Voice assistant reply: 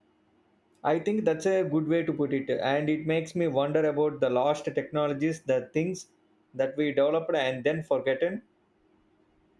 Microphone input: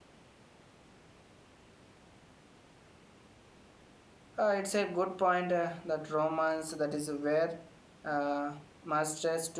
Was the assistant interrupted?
Yes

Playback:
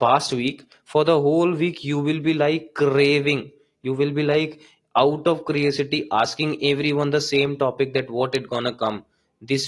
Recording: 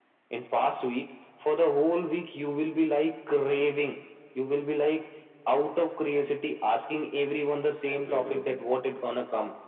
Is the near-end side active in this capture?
Yes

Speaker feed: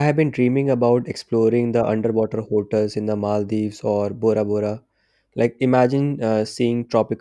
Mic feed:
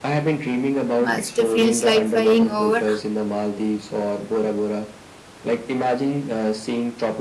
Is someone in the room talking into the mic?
Yes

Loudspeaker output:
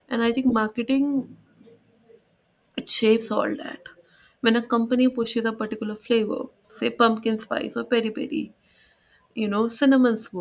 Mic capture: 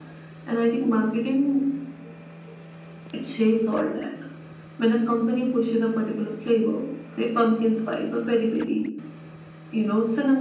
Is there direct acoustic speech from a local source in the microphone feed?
No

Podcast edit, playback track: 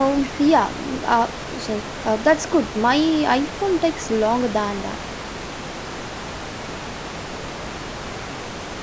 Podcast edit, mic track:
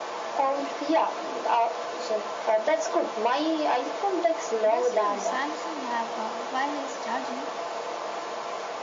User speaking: Yes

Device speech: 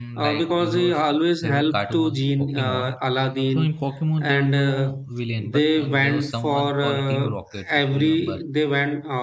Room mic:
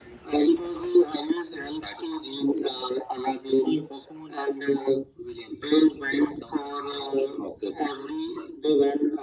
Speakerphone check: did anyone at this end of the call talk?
No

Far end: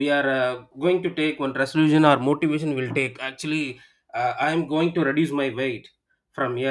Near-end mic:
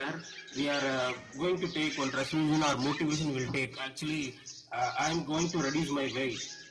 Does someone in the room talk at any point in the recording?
No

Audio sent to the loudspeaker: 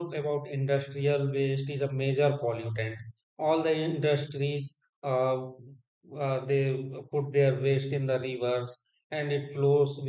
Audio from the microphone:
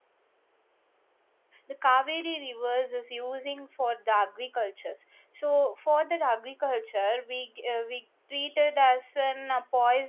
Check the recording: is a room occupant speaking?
Yes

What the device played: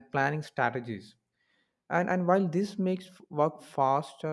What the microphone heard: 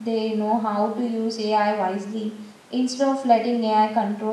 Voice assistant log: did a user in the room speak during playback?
Yes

